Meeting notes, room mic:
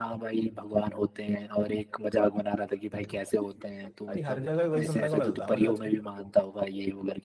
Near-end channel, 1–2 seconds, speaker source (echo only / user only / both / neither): echo only